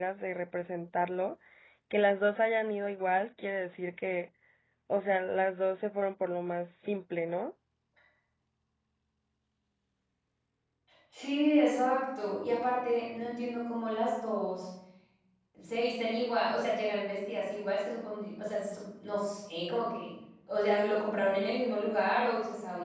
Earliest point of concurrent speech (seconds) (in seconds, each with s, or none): none